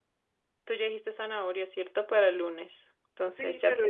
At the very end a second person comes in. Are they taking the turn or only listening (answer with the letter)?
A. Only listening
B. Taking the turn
B